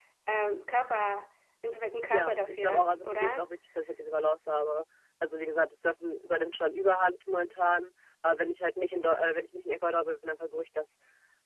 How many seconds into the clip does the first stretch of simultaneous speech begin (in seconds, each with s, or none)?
2.1 s